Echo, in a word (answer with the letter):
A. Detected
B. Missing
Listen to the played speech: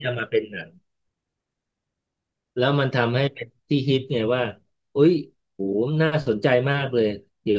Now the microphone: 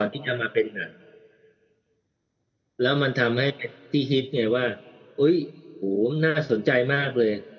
A